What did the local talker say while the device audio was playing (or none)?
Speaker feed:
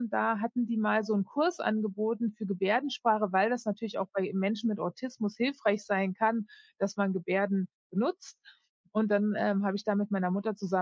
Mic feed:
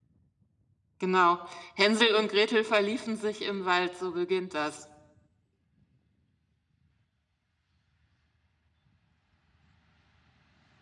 Genau. „Hänsel und Gretel verliefen sich im Wald”, so beginnt das.